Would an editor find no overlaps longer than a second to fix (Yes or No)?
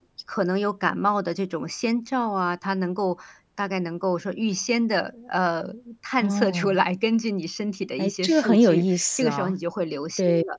No